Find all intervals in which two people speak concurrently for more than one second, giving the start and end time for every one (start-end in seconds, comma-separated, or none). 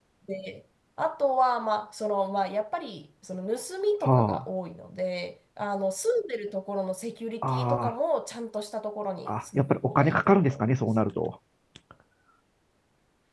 9.3-10.8